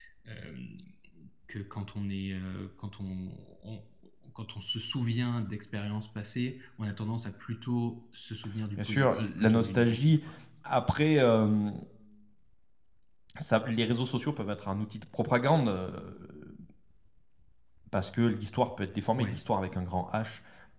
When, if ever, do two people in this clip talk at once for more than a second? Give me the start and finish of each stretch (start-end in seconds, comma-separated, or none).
8.8-10.2